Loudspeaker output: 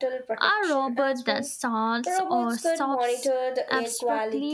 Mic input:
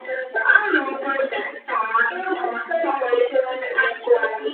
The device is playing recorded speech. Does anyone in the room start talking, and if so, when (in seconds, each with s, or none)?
none